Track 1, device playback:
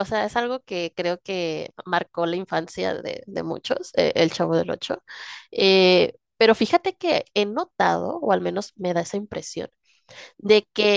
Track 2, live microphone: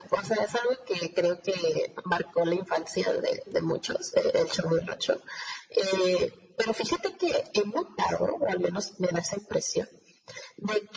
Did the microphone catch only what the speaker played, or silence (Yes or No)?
Yes